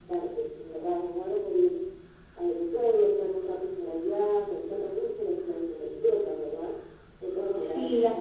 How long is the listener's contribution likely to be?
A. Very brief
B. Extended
B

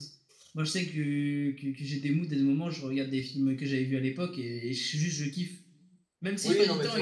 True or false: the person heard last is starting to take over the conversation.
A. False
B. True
B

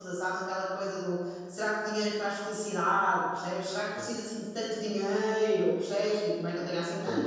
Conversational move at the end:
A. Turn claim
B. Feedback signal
B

